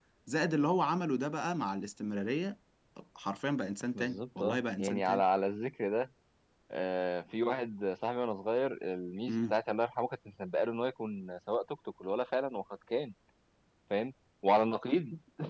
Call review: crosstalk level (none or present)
present